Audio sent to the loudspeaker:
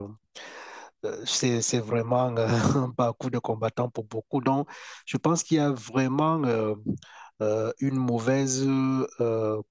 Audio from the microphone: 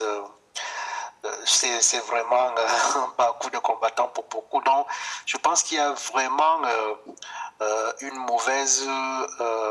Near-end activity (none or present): none